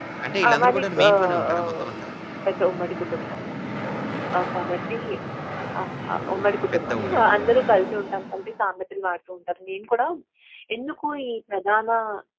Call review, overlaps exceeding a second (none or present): present